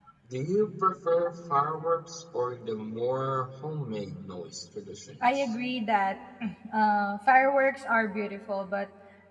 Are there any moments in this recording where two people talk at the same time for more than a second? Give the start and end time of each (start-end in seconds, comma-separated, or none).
none